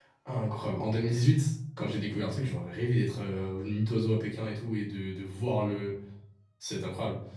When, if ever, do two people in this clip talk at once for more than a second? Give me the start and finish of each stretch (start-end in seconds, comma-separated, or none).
none